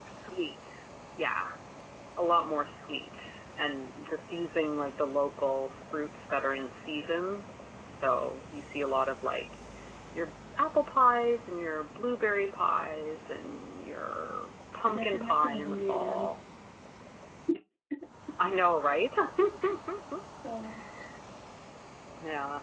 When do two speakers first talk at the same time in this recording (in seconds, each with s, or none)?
14.8 s